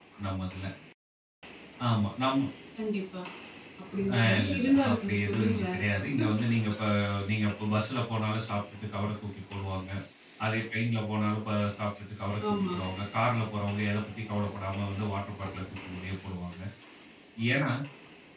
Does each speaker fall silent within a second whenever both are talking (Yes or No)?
No